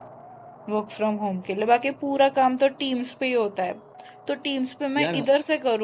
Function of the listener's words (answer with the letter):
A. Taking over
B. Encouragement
B